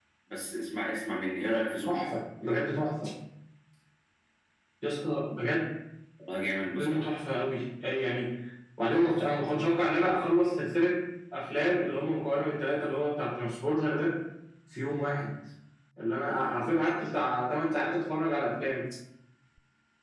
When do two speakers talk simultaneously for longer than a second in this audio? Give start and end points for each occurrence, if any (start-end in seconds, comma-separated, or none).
none